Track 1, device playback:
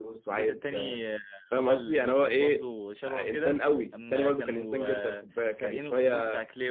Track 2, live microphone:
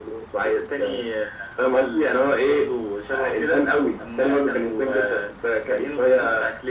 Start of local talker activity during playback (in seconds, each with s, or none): none